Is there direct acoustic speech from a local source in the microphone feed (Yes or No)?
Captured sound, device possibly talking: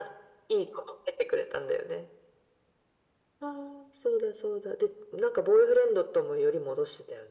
No